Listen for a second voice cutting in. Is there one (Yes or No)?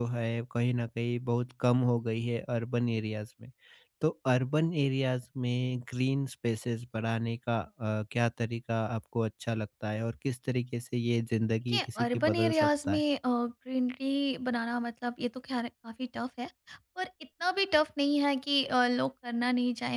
Yes